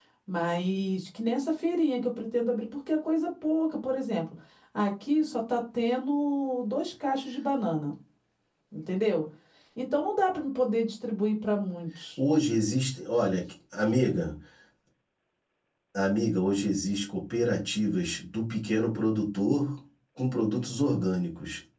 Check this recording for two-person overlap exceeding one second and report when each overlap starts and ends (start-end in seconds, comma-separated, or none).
none